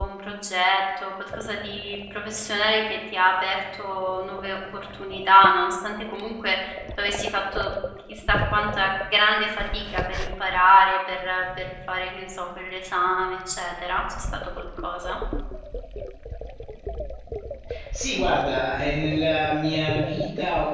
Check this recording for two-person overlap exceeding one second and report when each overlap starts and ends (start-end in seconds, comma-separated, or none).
none